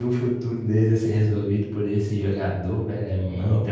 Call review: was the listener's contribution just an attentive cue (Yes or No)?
No